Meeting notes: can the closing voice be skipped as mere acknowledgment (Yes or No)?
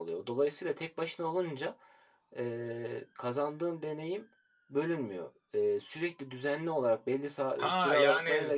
No